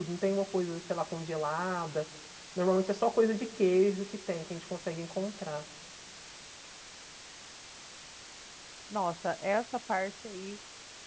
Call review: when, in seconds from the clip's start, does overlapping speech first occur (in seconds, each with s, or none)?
none